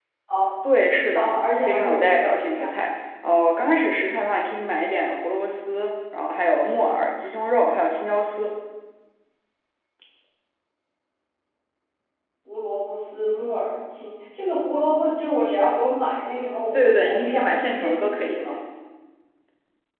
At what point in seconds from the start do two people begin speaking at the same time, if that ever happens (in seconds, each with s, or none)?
1.1 s